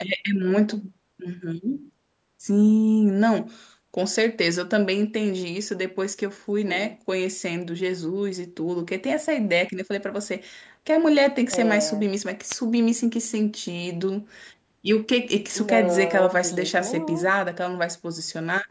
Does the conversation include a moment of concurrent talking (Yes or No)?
Yes